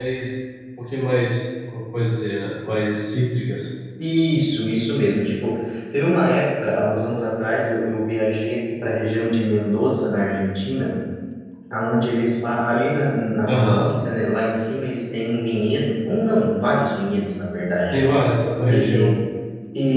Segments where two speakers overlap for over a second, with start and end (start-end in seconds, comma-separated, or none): none